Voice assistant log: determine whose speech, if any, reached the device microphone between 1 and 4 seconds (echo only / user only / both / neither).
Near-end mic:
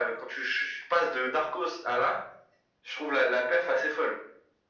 echo only